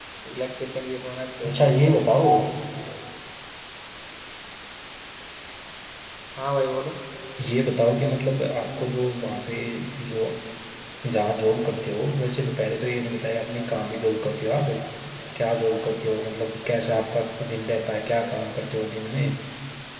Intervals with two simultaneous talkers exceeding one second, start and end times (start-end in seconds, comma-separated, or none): none